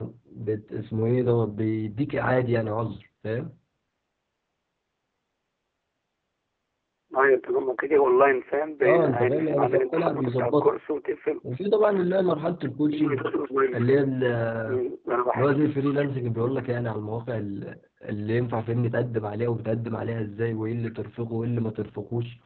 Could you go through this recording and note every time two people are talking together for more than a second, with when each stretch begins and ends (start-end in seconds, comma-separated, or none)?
8.8-10.7